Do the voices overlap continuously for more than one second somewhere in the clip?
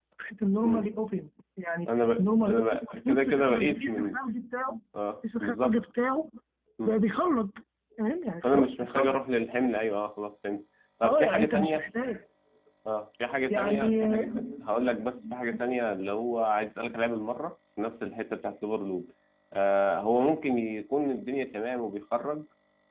Yes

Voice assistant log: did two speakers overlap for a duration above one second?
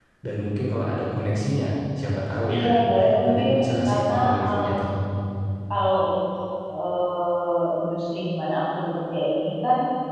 Yes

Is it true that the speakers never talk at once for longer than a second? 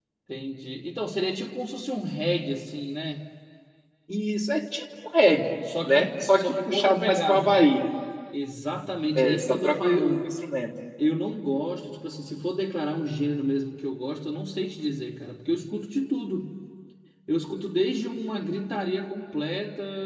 No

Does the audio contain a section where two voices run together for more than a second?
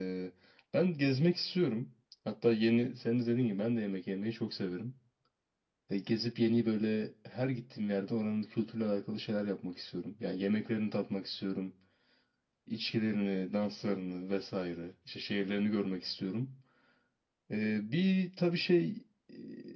No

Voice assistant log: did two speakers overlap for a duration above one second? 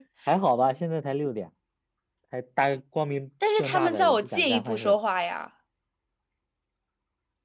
Yes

